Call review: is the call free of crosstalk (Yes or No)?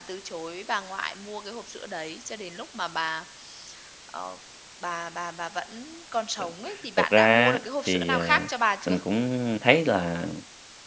No